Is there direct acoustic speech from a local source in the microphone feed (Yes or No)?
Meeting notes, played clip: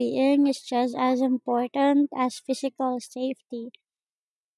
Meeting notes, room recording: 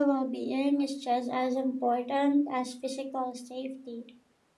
No